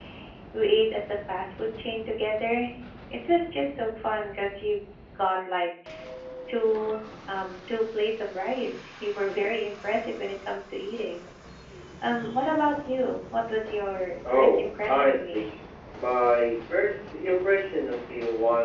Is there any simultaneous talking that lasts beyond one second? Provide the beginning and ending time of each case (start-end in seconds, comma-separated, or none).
14.2-15.5